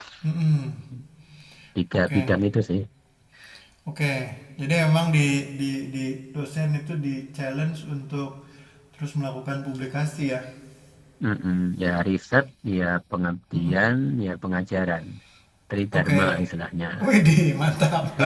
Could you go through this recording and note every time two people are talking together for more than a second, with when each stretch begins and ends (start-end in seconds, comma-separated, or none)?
none